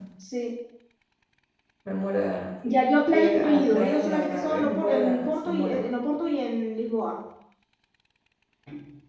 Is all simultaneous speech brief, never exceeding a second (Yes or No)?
No